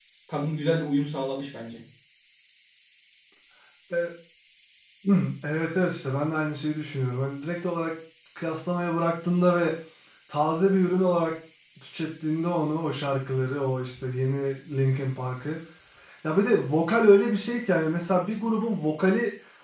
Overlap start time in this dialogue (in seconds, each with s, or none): none